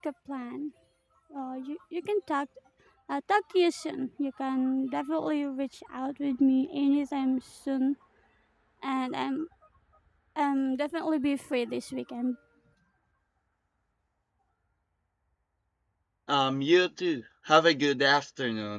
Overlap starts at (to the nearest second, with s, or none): none